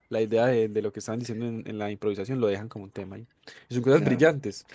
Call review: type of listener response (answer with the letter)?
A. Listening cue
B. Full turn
A